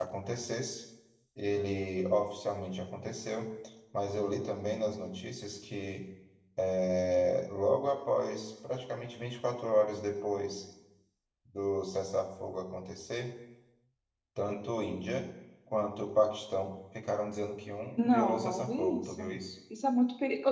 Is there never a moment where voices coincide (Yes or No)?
No